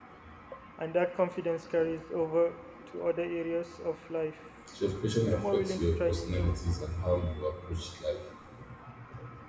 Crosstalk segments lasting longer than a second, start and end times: 5.3-6.5

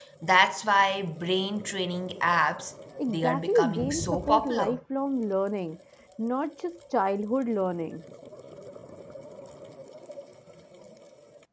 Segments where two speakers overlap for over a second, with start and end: 3.1-4.8

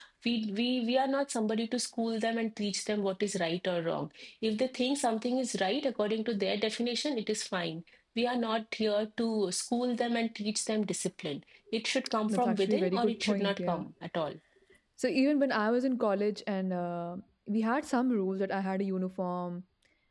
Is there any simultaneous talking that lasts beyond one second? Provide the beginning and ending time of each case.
12.3-13.8

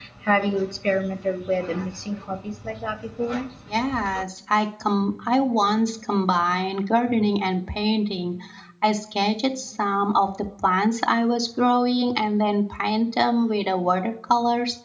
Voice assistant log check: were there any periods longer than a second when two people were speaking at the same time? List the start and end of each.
none

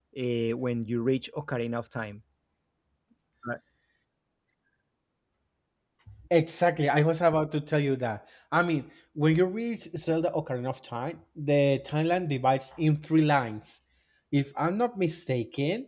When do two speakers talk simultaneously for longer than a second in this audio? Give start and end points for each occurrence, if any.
none

